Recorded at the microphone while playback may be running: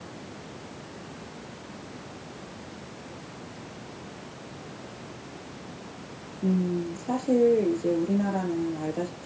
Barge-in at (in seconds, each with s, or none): 6.4 s